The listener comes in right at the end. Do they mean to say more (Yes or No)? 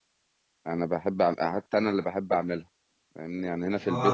Yes